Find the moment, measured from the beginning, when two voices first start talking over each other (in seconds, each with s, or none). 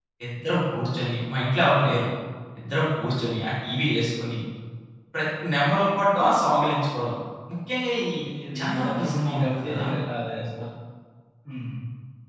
8.6 s